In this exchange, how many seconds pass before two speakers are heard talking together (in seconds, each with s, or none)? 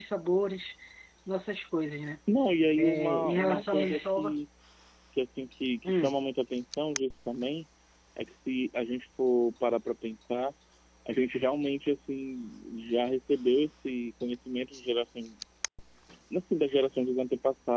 2.8 s